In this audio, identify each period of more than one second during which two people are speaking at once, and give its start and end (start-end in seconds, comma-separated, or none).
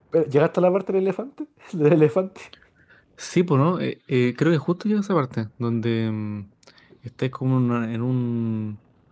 none